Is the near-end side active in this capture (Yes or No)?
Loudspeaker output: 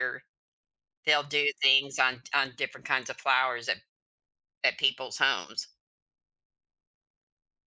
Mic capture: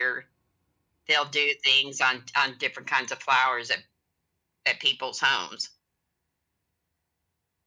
No